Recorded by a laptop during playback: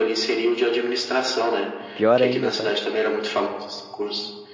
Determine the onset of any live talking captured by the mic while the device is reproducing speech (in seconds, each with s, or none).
1.9 s